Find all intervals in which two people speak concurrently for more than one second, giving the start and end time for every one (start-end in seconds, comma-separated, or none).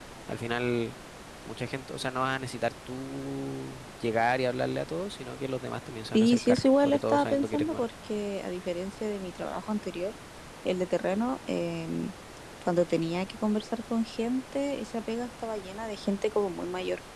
6.1-7.9